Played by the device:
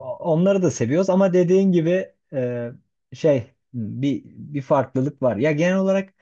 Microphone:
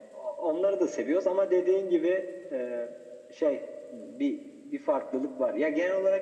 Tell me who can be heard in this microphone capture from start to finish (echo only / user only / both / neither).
echo only